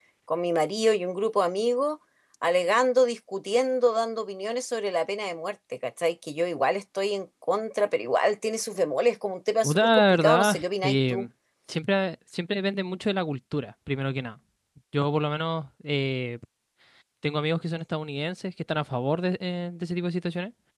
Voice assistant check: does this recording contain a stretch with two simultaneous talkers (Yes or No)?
Yes